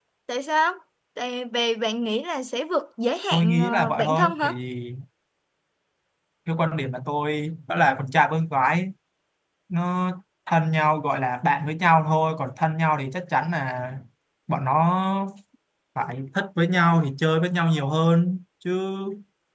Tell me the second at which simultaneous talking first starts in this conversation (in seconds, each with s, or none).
3.3 s